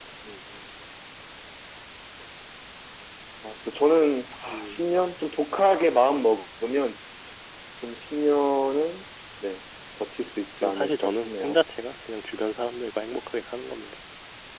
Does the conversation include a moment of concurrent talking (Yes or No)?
Yes